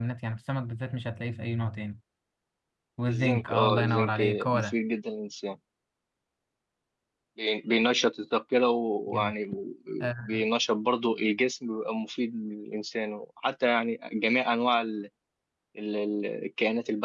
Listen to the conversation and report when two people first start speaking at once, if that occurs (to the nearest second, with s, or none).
3 s